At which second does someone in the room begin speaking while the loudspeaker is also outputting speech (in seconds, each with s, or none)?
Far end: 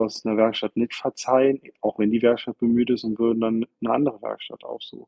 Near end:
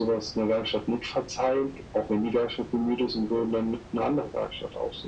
none